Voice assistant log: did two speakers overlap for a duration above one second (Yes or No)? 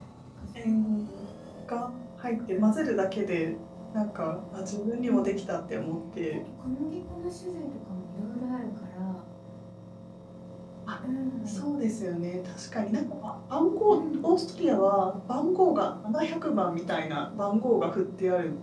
No